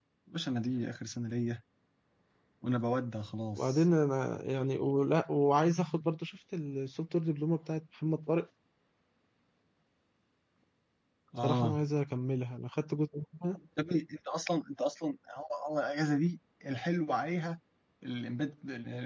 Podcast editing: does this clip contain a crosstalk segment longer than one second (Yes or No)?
No